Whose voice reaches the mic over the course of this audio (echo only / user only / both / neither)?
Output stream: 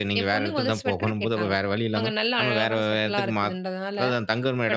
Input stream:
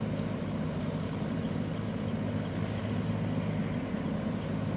neither